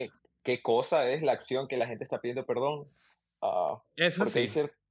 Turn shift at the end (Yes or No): No